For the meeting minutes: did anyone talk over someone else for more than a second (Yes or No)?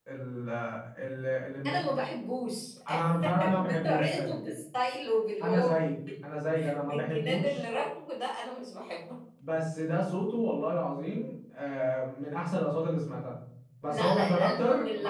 Yes